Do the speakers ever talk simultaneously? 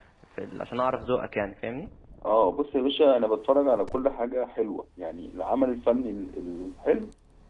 No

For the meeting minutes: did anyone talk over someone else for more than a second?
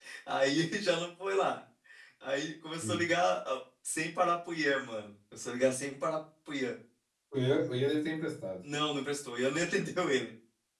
No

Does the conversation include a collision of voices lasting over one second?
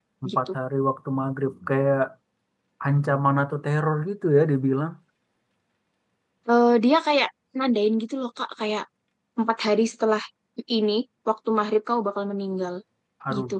No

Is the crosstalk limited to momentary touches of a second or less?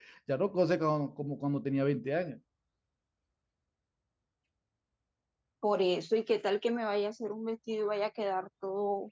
Yes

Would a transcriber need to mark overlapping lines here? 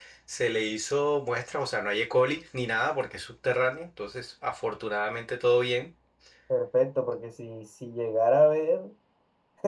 No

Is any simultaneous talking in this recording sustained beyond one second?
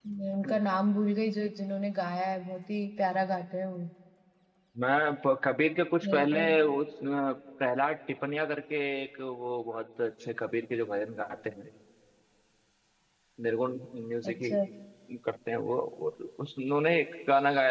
No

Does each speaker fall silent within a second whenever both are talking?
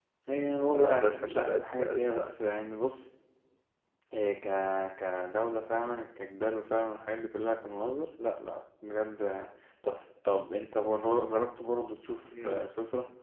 No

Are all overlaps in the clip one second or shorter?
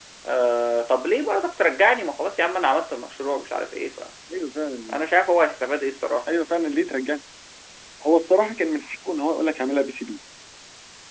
Yes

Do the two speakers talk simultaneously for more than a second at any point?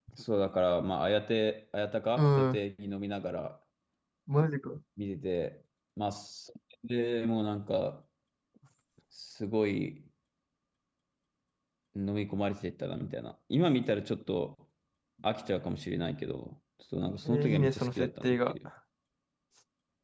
Yes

